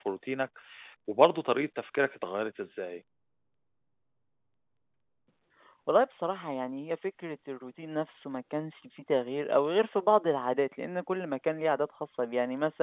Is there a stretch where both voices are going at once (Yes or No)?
No